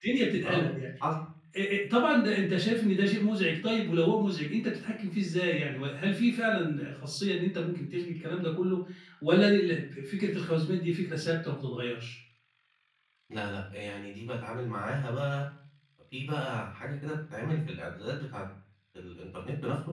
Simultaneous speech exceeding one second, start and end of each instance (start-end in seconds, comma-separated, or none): none